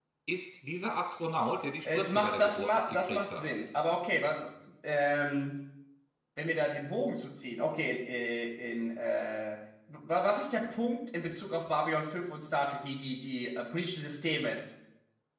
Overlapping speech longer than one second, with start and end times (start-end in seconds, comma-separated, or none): 1.8-3.4